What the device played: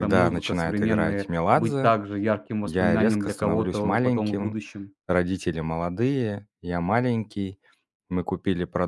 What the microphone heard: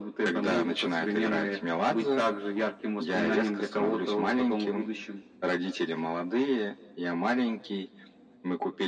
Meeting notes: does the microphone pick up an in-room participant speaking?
No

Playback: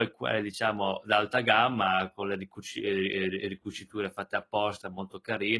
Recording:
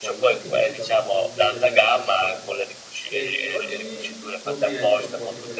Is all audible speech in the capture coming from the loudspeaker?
No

